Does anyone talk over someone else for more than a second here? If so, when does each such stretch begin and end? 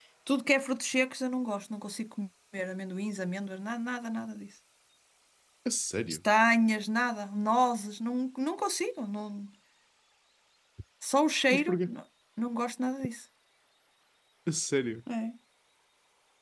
none

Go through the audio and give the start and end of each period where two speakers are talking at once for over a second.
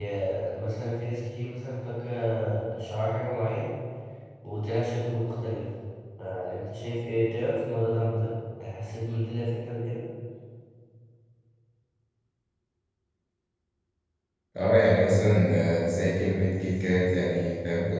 none

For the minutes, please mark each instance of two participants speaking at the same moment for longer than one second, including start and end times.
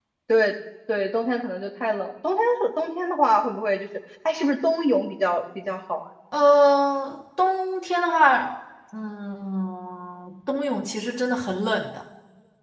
none

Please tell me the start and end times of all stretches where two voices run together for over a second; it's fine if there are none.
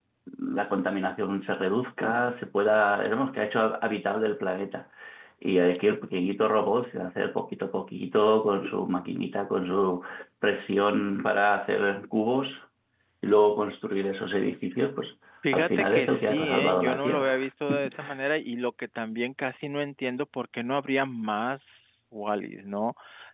15.5-17.3

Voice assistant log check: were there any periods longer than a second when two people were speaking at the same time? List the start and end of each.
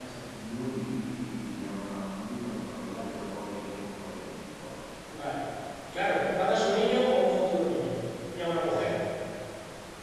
none

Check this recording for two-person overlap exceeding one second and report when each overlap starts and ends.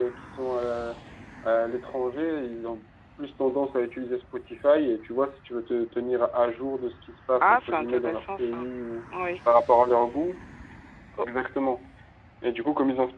7.4-8.6

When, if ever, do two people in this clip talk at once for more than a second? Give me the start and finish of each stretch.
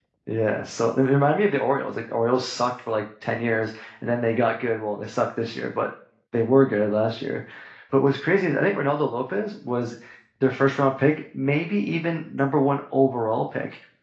none

